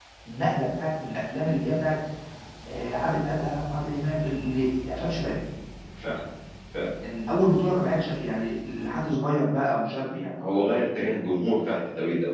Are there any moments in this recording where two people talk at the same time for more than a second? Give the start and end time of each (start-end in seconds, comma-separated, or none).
none